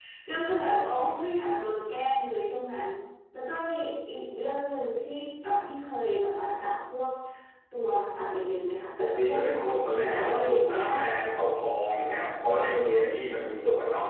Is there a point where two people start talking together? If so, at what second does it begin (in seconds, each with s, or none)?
9.0 s